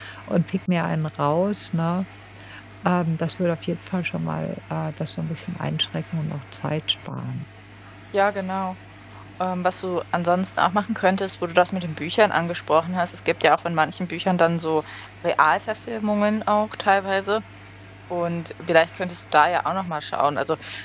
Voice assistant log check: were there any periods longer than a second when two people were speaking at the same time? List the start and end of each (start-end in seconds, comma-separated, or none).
none